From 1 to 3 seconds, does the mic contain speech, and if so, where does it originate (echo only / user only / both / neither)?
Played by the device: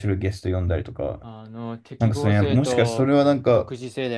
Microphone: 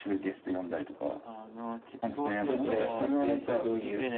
both